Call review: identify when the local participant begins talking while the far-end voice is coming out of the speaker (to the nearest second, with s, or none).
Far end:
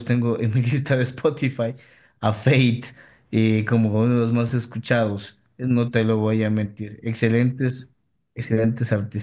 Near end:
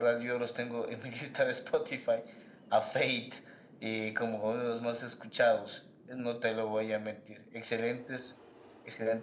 none